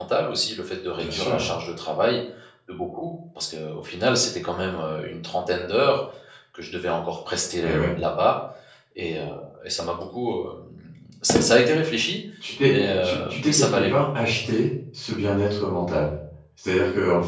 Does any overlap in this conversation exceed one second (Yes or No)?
Yes